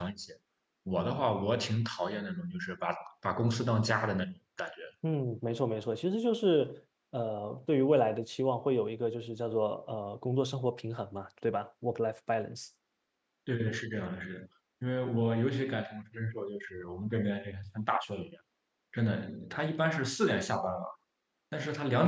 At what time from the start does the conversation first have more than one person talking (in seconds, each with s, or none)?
none